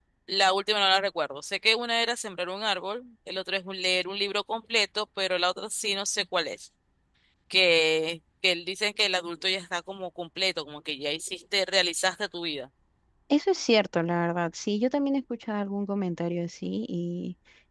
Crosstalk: none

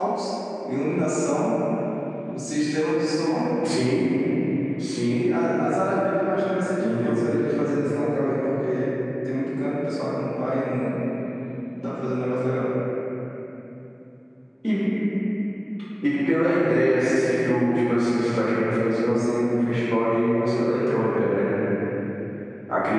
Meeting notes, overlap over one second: none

